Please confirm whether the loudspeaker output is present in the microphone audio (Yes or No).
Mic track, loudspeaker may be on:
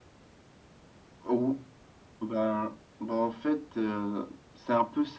Yes